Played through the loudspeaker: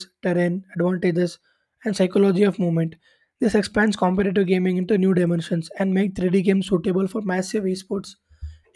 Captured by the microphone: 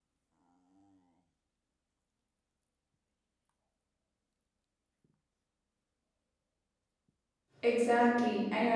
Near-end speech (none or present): present